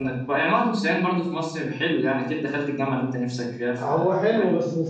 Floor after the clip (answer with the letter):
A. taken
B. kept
A